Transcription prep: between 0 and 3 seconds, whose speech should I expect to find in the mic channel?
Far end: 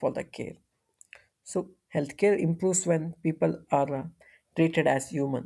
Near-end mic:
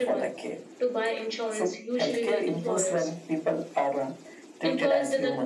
both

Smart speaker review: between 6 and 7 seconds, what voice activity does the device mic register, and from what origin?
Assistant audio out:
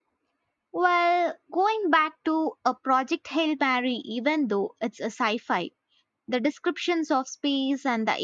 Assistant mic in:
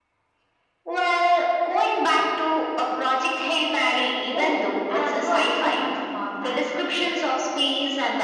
both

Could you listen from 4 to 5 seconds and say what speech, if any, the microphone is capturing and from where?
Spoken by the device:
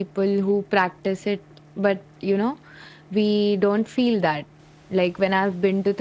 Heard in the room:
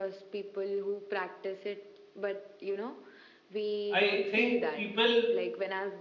both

